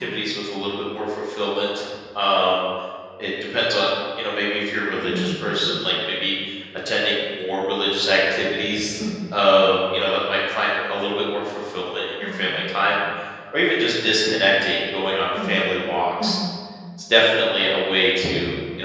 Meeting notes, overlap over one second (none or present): none